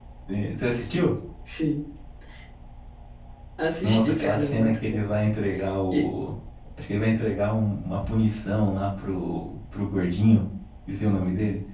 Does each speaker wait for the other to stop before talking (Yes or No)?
No